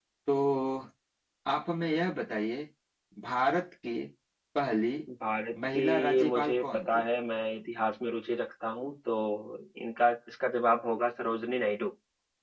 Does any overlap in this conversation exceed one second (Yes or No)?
Yes